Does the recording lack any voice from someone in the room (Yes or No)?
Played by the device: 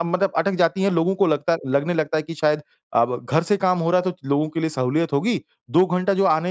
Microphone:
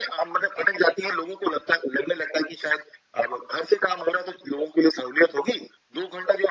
Yes